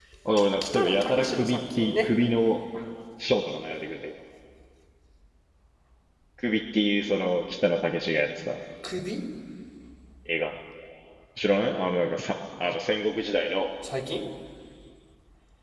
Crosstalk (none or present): present